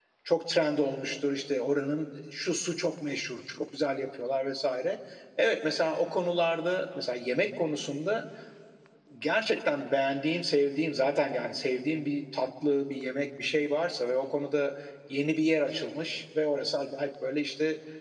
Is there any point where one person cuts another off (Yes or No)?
No